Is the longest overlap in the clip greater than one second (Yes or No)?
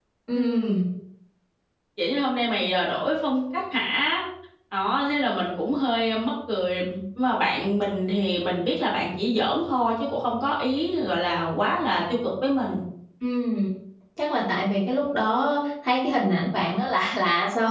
No